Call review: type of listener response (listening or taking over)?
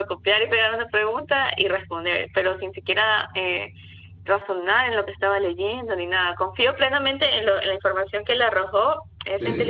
listening